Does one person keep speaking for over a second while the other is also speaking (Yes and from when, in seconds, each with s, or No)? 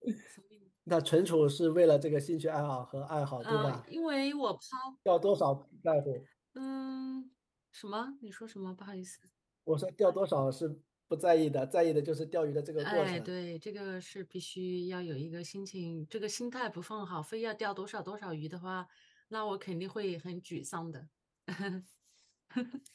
No